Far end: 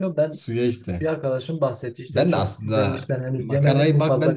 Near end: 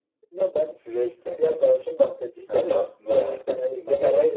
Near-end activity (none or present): present